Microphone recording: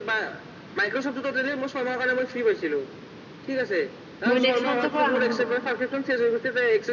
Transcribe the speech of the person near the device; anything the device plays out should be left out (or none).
মই নেক্সট মান্থৰ পৰা আৰম্ভ কৰিম।